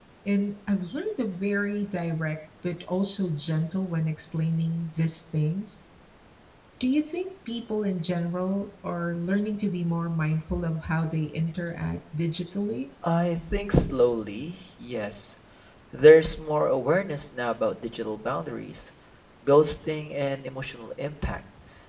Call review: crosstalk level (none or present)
none